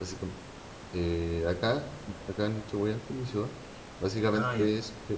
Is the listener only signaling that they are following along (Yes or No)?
Yes